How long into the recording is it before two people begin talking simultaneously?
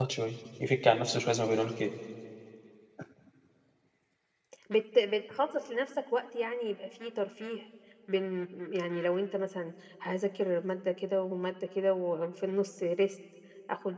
none

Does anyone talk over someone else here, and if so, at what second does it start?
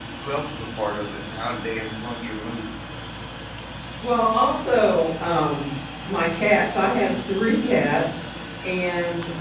none

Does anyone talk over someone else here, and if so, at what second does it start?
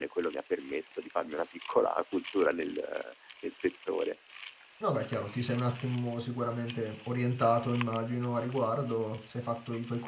none

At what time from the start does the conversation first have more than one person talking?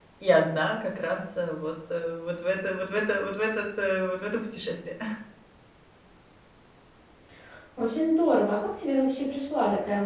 none

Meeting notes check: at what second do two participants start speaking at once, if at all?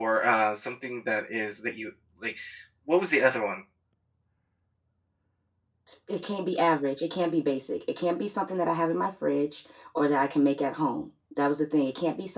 none

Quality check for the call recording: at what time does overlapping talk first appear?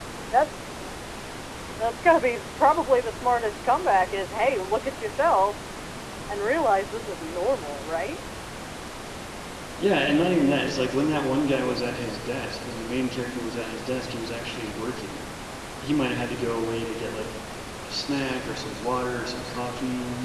none

